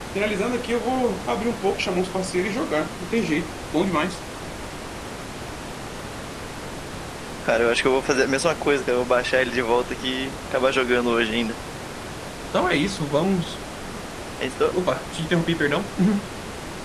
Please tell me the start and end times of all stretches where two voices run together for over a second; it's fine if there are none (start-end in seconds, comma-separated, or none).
none